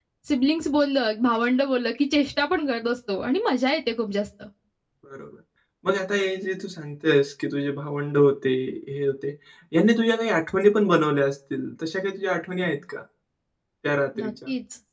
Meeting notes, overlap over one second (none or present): none